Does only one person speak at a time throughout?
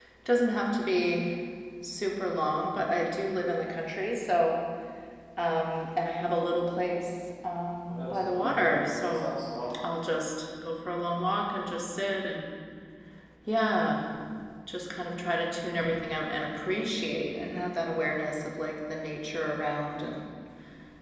No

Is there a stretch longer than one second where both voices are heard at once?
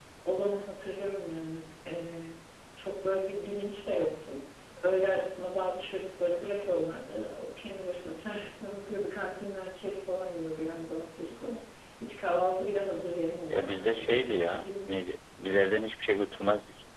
Yes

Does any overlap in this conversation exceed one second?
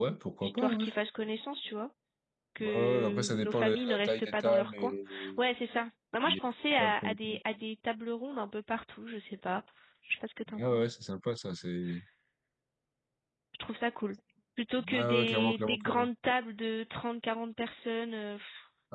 Yes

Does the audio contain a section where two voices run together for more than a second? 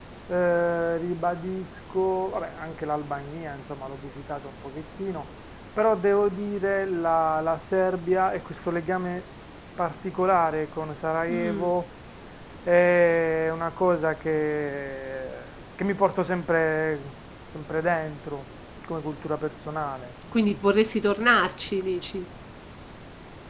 No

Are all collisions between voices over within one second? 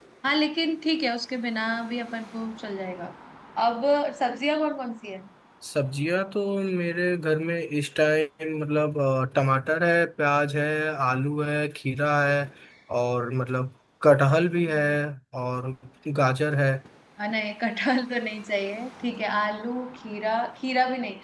Yes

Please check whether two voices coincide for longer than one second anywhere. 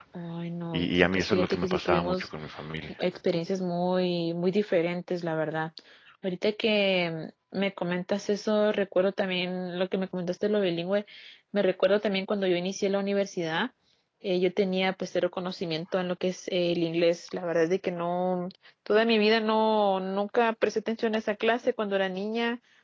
Yes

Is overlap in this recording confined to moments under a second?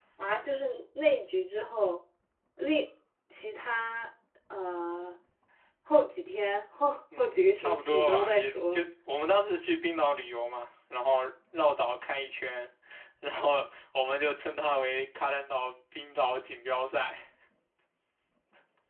No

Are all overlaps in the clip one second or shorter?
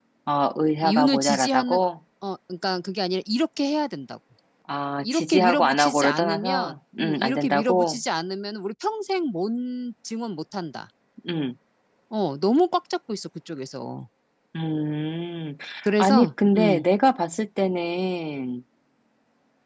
No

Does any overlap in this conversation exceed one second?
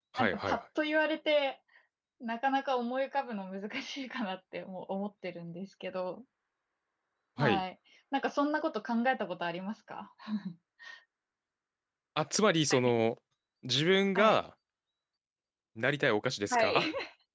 No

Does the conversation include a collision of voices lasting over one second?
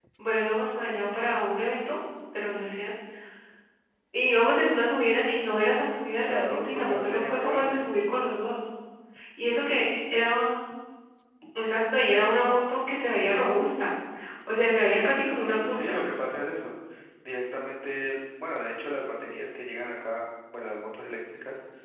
Yes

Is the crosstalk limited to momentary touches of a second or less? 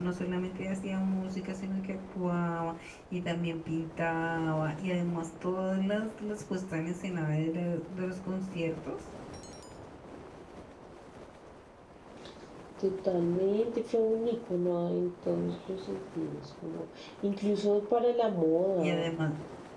Yes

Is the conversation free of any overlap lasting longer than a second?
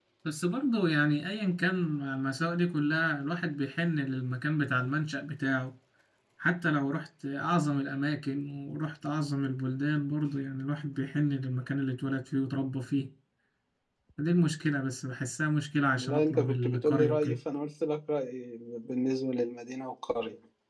No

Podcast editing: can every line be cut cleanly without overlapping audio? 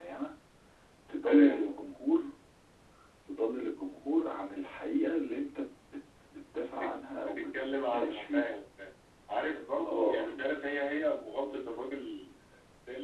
No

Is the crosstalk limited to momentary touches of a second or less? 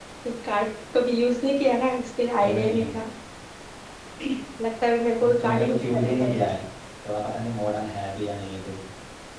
No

